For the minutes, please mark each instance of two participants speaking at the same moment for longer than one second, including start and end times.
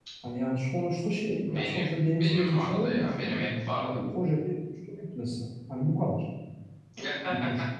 1.5-4.0

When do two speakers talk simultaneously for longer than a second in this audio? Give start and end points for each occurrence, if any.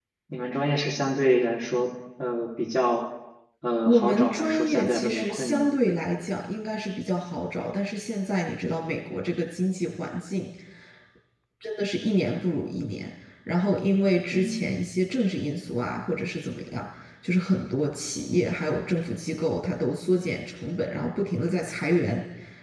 3.9-5.6

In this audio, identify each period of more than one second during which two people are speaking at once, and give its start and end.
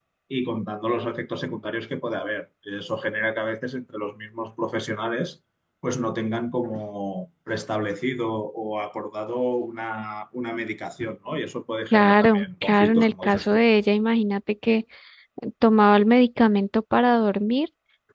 11.9-13.6

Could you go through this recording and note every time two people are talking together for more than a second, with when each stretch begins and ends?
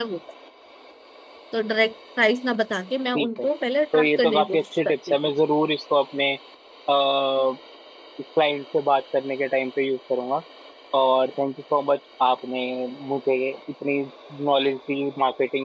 3.9-5.2

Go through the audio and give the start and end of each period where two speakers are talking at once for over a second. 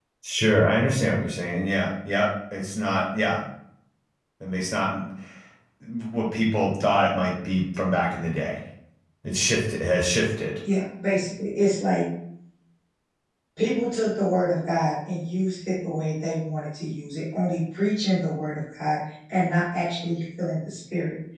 none

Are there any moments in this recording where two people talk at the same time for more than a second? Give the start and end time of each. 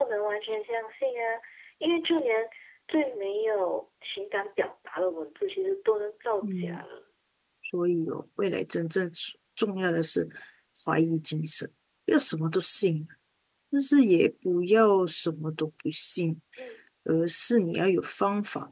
none

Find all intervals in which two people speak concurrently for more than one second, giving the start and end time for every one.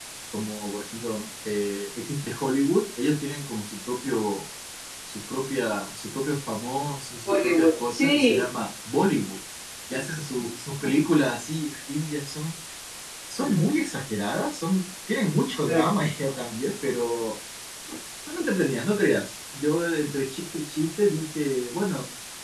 7.2-8.5

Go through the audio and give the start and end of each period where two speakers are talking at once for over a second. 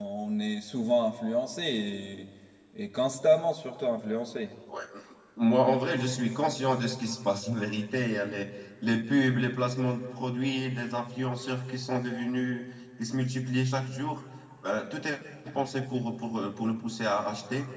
none

